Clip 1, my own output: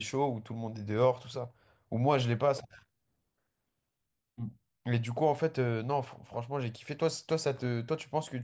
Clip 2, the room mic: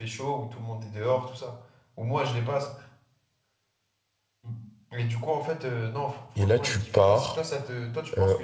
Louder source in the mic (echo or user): user